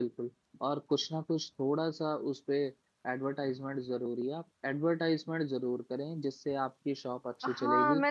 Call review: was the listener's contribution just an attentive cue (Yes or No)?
No